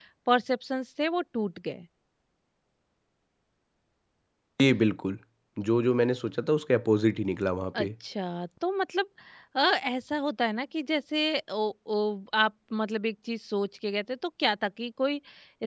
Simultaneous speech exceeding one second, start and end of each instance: none

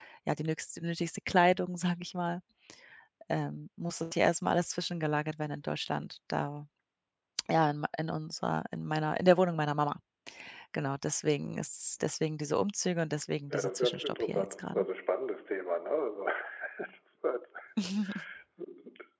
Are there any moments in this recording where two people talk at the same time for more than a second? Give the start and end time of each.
13.5-14.8

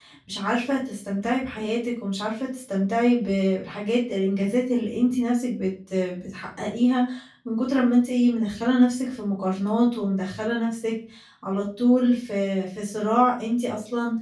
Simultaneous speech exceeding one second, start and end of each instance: none

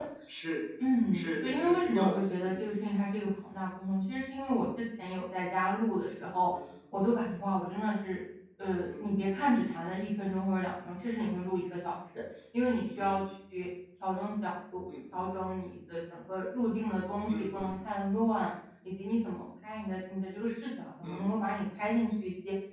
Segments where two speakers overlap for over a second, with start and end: 1.1-2.6

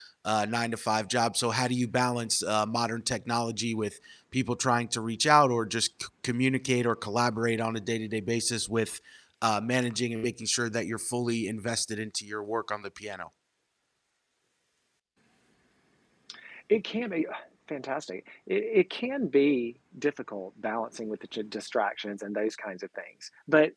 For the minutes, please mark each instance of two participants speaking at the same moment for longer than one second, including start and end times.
none

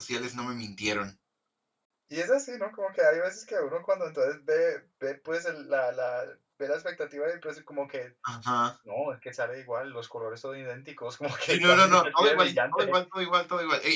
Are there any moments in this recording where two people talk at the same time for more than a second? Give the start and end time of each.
11.4-12.9

